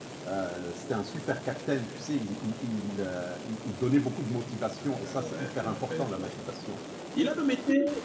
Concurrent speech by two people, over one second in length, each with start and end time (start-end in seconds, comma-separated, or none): 4.9-6.3